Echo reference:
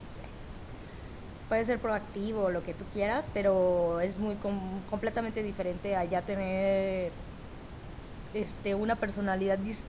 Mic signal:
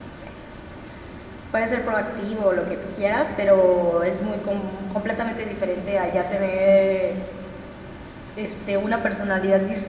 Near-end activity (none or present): none